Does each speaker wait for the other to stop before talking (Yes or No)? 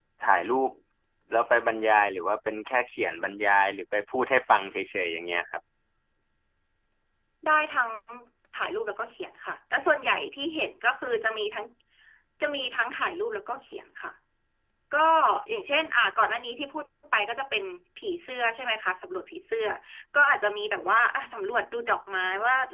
Yes